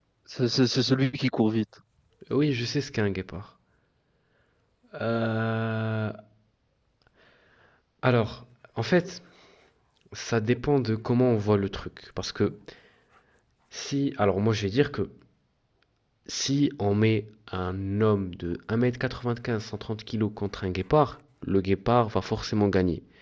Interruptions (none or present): none